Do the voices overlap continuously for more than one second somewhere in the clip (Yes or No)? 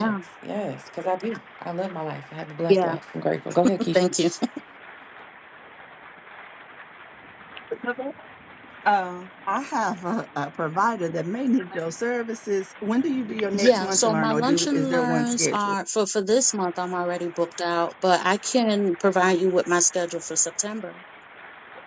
Yes